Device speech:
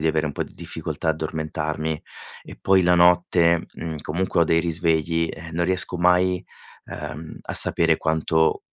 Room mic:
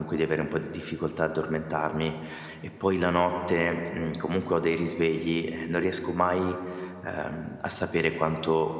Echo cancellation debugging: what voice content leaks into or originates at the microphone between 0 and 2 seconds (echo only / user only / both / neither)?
echo only